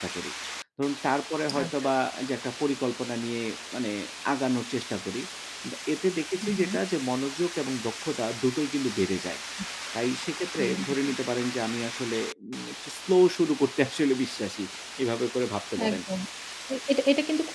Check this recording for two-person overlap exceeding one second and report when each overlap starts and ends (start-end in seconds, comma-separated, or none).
none